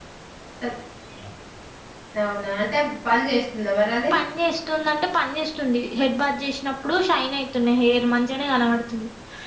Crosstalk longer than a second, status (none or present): none